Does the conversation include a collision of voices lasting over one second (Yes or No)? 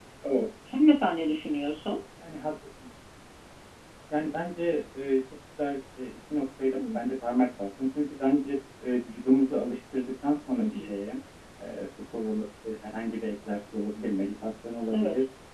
No